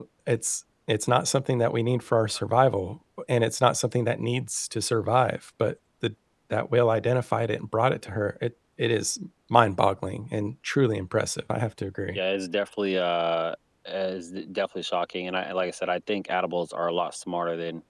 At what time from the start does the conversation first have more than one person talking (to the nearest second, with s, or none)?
none